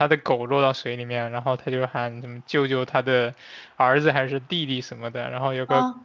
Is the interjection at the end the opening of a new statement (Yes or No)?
No